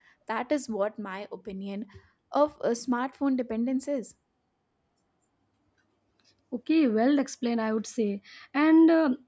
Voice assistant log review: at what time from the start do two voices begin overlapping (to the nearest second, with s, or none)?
none